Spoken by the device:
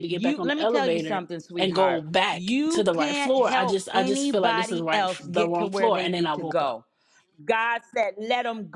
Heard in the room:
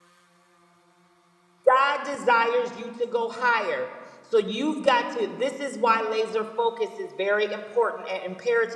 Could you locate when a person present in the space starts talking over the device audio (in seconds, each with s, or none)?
1.6 s